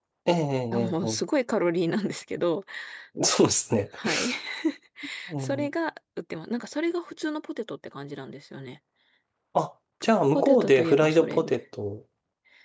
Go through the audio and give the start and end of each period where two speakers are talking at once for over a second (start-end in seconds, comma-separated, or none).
10.3-11.6